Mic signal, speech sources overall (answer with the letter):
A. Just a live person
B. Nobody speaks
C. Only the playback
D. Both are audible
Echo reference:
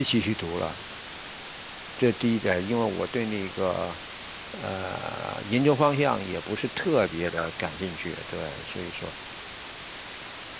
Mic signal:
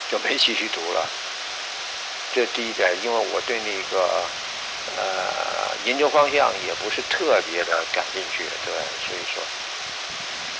C